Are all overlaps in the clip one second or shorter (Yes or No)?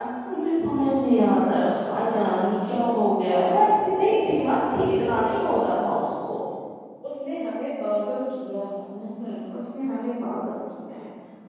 Yes